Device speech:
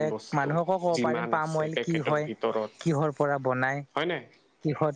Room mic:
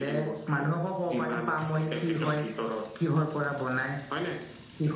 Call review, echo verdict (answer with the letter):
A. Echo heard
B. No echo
A